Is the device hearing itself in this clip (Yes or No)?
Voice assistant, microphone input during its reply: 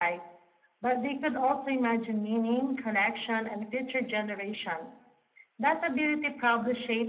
Yes